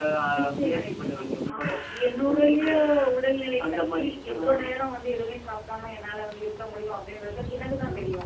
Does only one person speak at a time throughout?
No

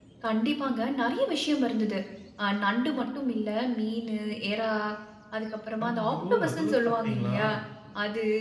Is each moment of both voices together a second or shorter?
No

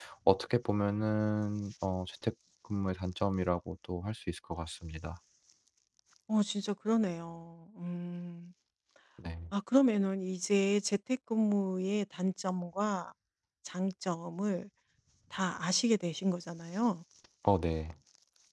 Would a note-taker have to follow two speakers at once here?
No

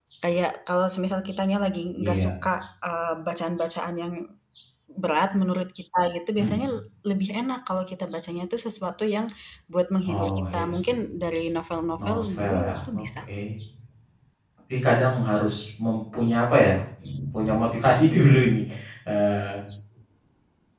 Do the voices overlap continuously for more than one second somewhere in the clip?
Yes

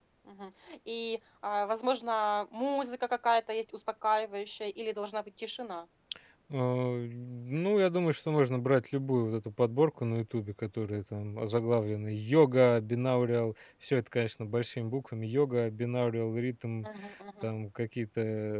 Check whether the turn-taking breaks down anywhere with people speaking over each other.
No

